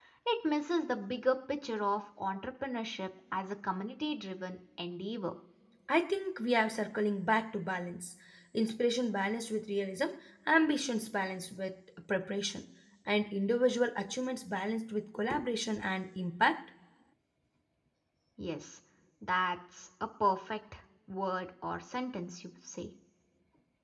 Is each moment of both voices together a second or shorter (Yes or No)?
Yes